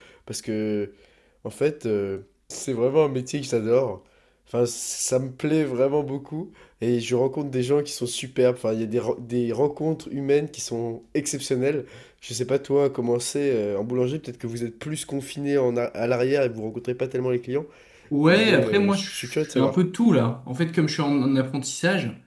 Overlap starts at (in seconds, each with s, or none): 18.3 s